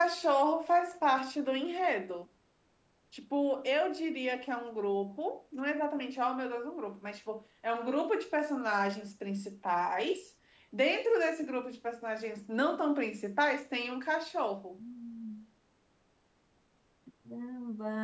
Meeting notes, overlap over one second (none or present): none